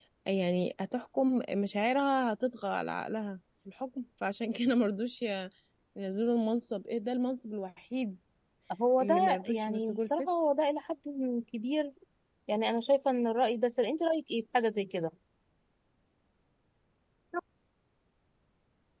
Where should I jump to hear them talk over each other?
9 s

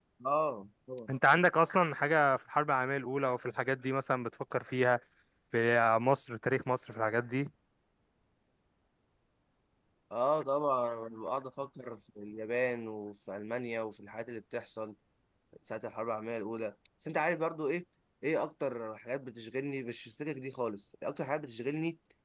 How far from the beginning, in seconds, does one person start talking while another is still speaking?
none

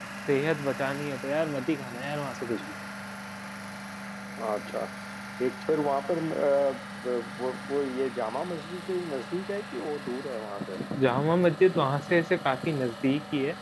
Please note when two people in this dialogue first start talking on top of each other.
none

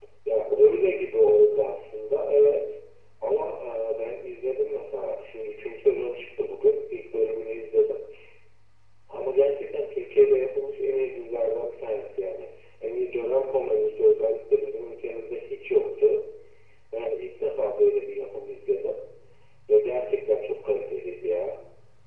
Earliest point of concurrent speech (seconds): none

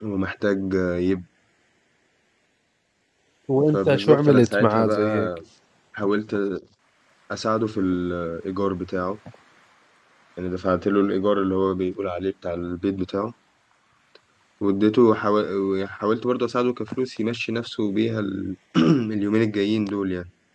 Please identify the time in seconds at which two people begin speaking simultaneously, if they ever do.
4 s

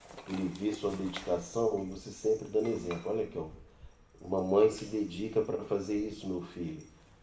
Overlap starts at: none

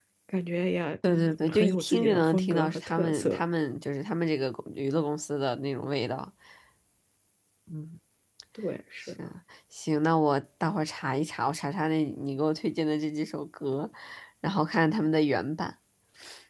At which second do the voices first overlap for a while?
1 s

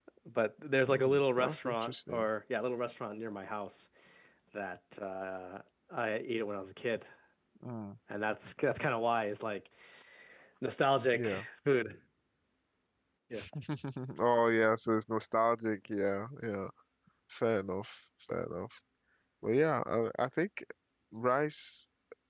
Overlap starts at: 1 s

